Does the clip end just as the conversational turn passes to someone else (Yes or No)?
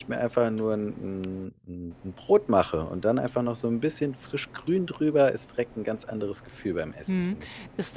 Yes